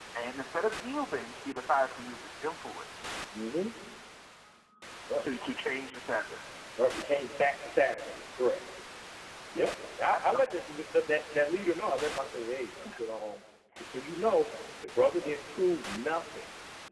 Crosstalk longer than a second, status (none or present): none